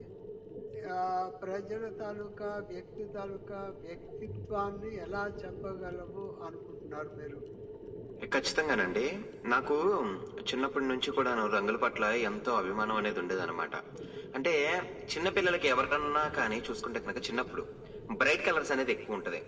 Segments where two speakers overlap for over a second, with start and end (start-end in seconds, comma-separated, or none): none